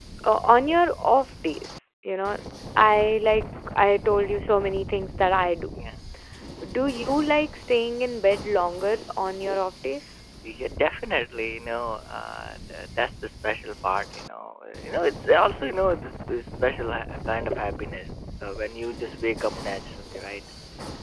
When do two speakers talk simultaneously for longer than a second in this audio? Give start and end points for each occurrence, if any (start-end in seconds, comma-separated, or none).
none